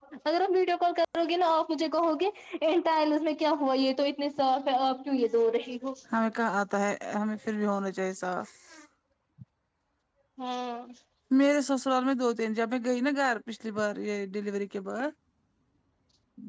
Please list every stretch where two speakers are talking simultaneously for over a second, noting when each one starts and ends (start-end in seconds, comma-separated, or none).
none